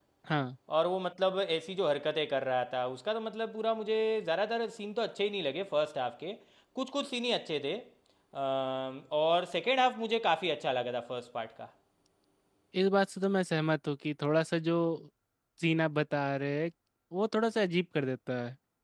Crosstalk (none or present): none